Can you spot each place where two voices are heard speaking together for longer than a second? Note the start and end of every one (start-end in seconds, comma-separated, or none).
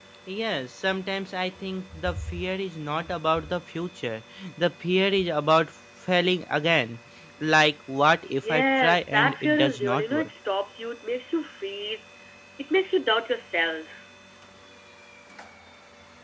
8.4-10.3